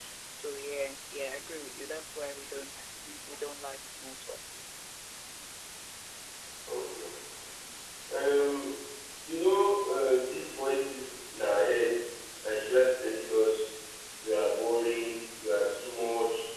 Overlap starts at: none

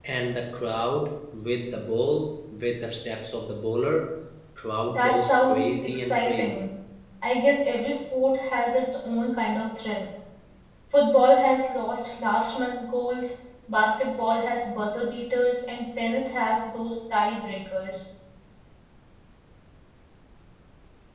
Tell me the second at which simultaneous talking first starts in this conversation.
5 s

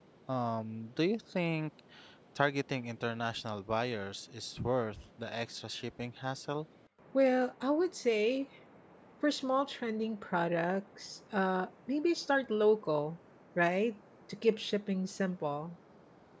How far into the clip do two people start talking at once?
none

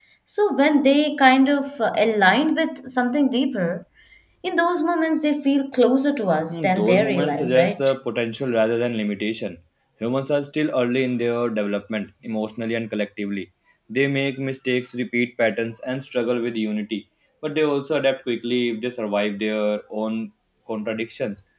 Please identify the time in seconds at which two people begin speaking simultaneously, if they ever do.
6 s

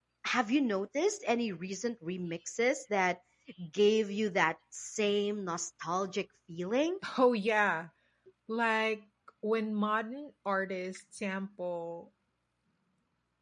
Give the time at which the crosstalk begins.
none

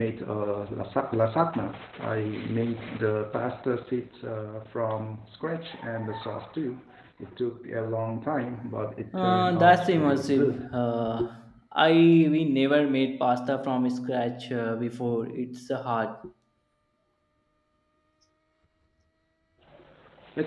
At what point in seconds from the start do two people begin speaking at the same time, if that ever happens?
9 s

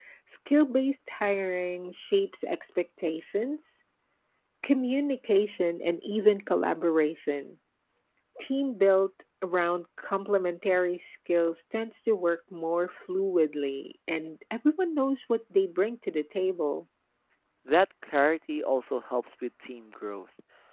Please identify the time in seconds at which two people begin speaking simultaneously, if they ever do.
none

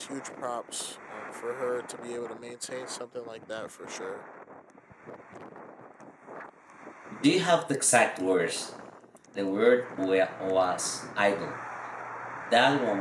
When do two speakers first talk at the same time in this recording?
none

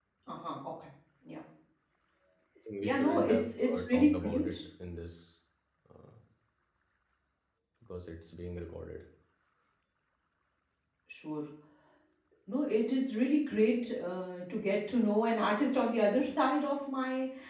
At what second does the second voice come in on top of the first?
3 s

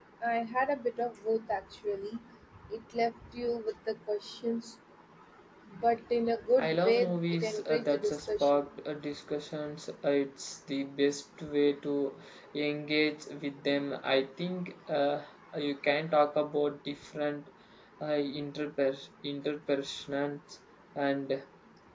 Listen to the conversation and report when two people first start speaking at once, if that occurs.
7 s

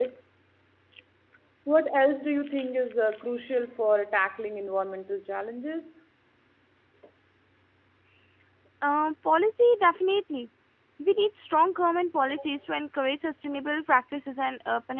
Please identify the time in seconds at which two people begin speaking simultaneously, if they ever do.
none

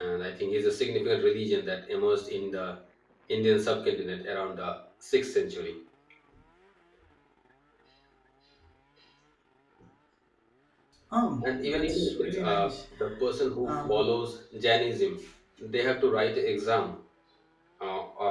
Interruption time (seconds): 11 s

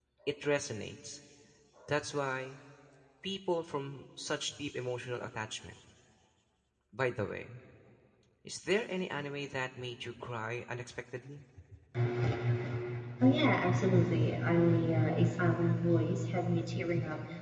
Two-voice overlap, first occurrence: none

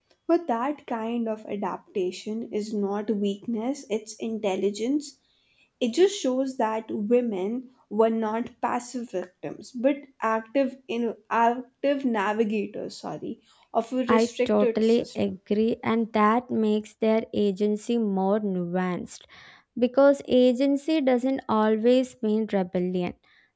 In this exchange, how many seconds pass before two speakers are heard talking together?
14 s

